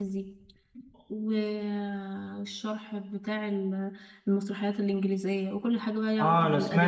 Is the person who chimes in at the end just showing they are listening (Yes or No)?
No